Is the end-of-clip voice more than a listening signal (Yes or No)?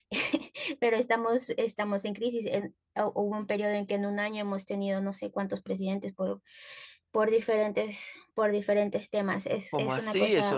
Yes